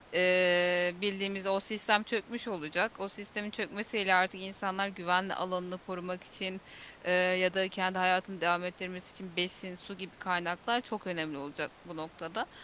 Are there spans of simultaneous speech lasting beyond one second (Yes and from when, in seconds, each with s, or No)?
No